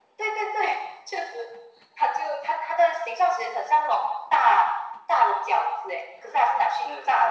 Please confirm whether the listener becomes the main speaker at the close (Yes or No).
Yes